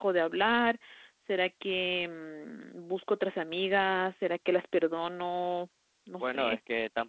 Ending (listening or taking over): taking over